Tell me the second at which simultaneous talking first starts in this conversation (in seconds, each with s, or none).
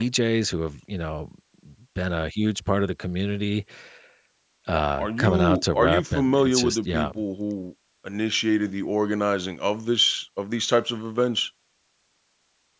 5.0 s